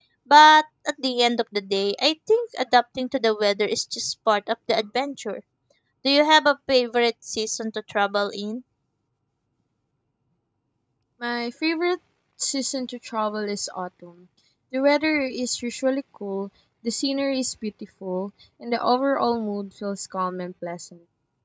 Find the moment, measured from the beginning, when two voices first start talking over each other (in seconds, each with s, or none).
none